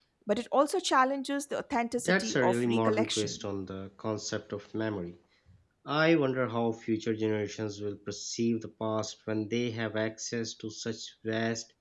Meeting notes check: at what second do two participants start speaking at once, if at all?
2.0 s

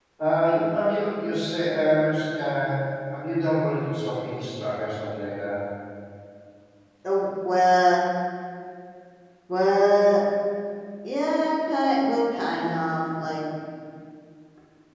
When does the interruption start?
none

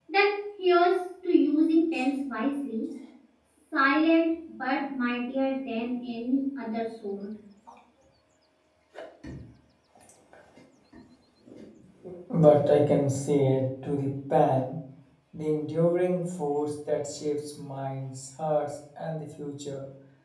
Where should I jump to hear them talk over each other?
none

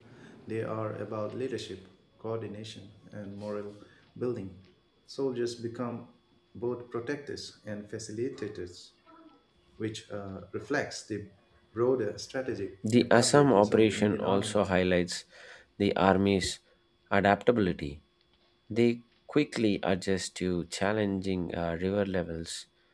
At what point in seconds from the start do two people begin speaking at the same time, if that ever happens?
12.8 s

